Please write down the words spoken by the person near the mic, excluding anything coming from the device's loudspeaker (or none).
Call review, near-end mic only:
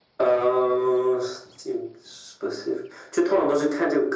none